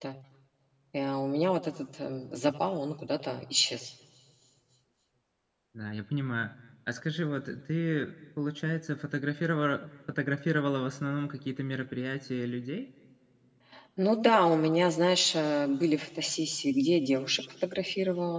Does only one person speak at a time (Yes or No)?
Yes